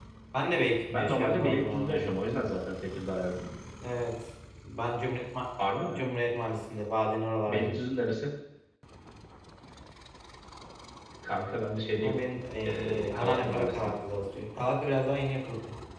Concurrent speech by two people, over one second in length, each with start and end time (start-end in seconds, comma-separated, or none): 0.9-2.1, 12.7-13.9